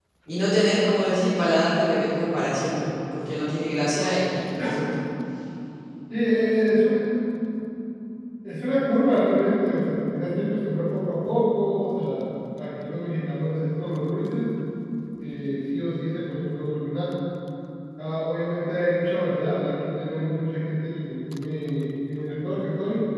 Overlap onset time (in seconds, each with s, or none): none